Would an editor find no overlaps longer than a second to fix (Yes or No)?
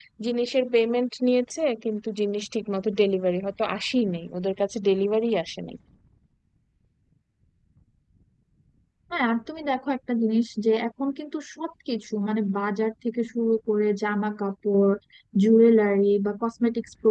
Yes